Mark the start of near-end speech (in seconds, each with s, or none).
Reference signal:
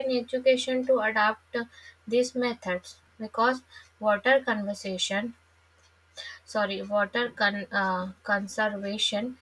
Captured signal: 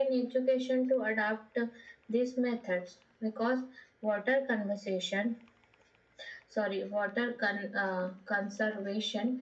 none